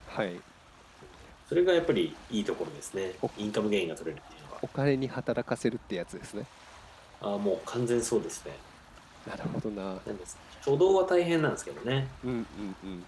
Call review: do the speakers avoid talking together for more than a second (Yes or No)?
Yes